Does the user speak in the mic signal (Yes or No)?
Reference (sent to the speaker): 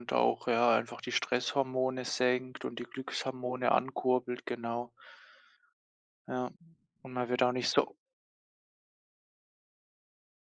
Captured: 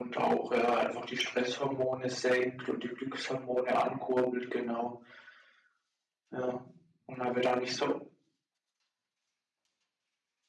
No